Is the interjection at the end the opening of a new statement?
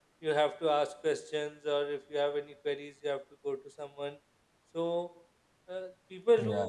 No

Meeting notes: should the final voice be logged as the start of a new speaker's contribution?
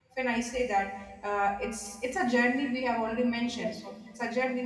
No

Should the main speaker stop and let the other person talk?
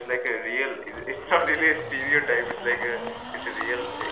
Yes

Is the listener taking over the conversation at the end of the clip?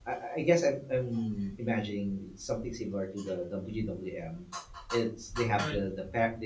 No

